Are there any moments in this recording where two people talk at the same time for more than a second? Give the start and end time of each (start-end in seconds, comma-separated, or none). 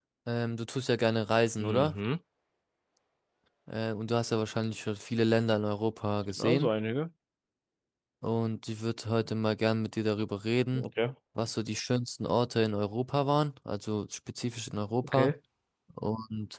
none